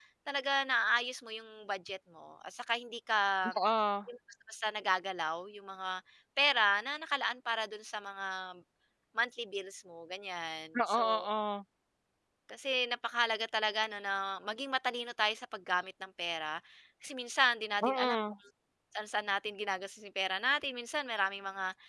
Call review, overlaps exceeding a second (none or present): none